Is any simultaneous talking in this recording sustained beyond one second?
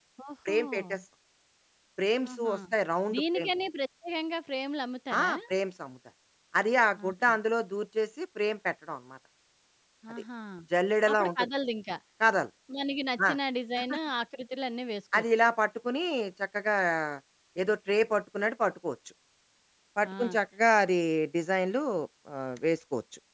No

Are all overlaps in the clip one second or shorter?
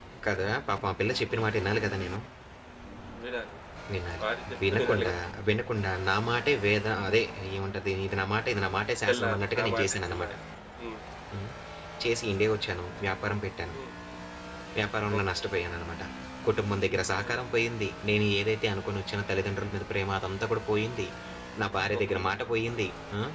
No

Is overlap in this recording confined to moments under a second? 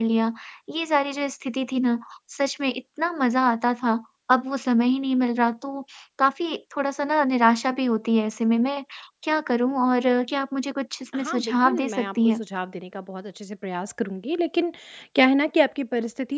No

